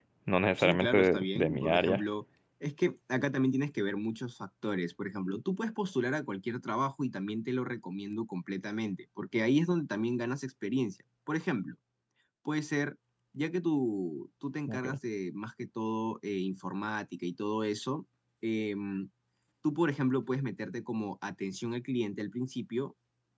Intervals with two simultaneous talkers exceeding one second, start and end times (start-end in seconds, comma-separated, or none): 0.6-2.0